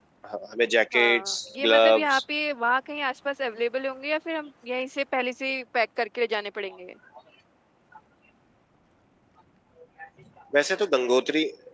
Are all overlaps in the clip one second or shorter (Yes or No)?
No